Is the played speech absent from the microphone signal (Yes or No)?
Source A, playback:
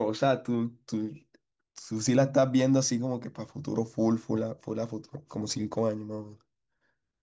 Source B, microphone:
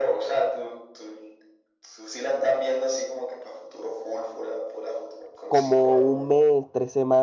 No